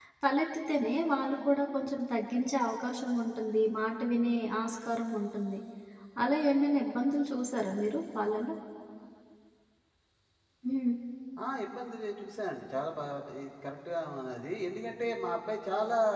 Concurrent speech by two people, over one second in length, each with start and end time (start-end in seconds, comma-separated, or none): none